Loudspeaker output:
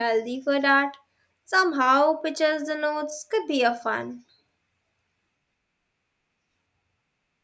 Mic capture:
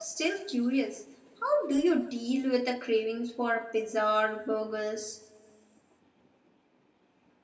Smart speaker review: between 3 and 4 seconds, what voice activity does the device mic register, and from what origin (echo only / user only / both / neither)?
user only